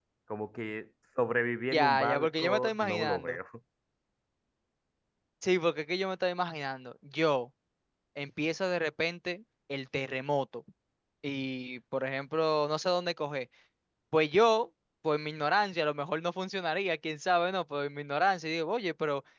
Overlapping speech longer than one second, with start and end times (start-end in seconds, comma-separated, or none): 1.7-3.4